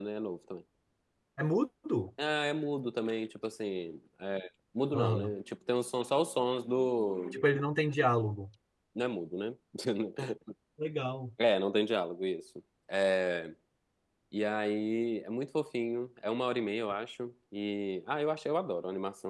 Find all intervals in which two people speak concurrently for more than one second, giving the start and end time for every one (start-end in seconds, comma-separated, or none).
none